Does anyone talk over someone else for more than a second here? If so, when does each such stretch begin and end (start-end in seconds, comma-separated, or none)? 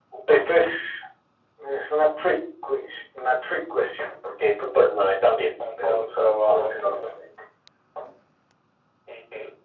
5.8-7.1